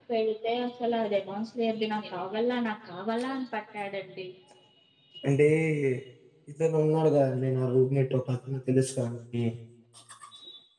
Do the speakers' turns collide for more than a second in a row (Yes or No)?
No